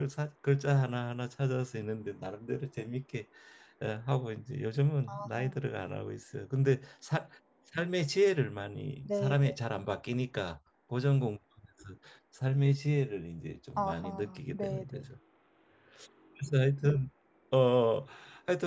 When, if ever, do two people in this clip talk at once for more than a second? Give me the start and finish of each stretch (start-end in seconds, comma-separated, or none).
13.8-15.0